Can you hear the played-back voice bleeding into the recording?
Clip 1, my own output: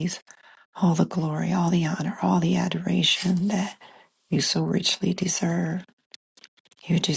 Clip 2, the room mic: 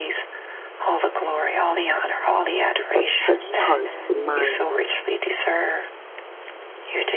Yes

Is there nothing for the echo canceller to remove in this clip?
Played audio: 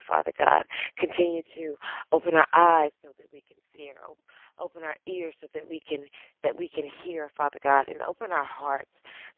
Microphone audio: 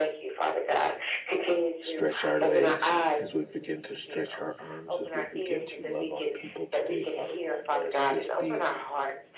No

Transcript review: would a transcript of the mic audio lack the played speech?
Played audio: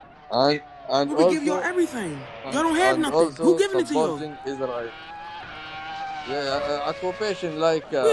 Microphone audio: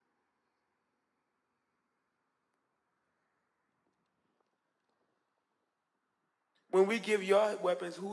Yes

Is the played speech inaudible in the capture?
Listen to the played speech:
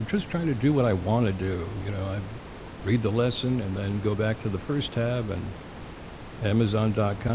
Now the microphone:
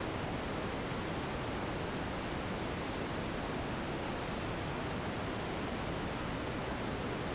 Yes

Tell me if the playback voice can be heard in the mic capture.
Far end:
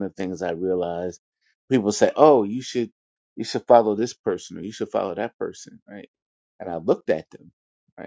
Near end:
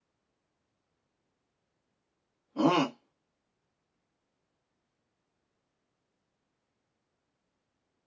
No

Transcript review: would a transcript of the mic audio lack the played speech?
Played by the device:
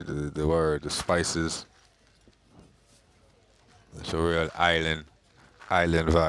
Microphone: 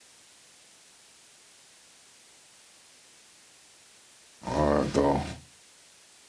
Yes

